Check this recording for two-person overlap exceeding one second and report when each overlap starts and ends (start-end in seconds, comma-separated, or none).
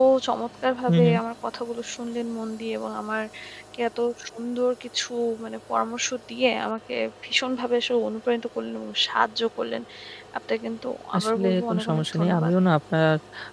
11.2-12.5